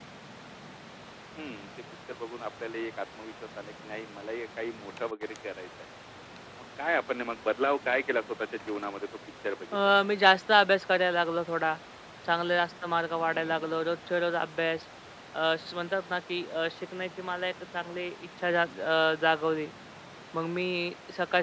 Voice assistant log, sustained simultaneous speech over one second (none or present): none